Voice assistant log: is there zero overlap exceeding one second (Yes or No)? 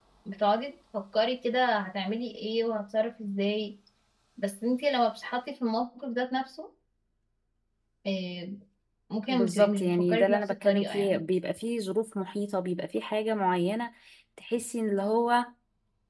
No